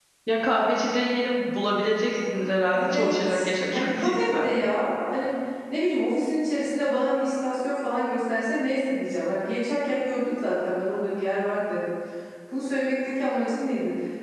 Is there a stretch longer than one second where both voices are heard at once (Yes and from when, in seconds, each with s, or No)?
Yes, from 2.7 s